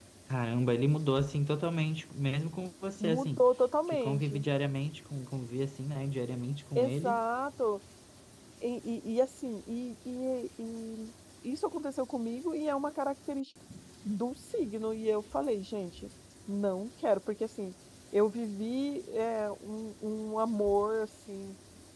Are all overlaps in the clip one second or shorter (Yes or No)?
Yes